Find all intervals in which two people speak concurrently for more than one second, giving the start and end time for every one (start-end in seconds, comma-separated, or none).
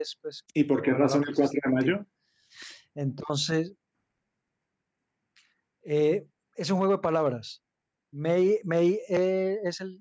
0.7-1.9